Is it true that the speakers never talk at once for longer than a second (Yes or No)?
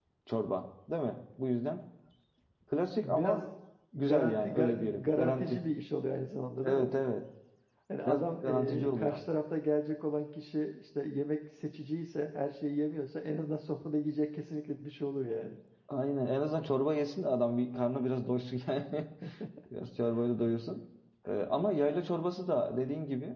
No